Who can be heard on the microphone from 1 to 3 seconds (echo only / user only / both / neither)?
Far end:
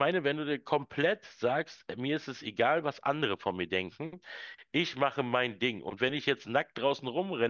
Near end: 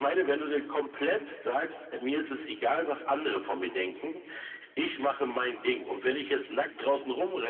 echo only